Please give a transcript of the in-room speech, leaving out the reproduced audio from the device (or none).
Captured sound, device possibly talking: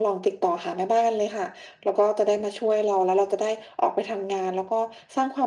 none